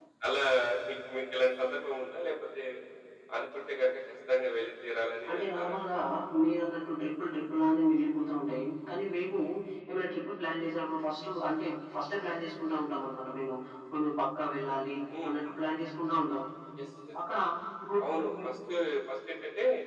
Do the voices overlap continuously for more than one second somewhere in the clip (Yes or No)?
No